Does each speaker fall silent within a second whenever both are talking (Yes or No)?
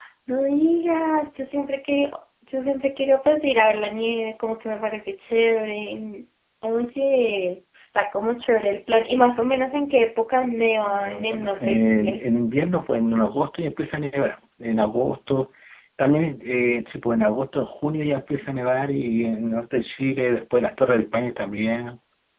No